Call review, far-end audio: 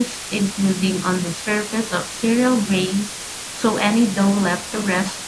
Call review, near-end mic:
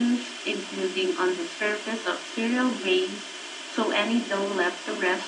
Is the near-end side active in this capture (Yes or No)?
No